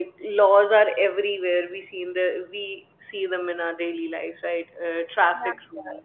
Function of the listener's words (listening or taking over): taking over